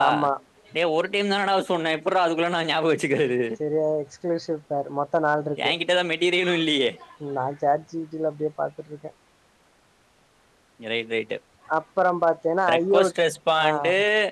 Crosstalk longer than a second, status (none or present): none